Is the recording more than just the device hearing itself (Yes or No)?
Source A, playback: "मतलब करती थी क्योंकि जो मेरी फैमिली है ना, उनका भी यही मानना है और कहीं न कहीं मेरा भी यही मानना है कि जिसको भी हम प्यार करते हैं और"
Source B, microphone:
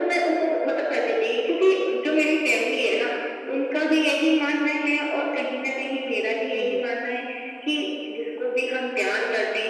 Yes